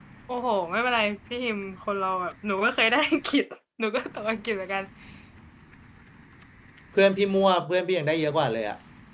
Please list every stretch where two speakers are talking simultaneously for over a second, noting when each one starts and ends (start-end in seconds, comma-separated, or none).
none